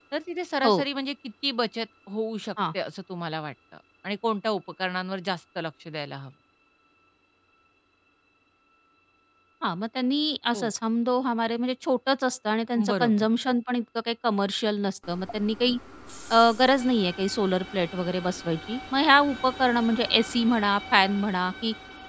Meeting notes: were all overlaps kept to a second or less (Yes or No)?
Yes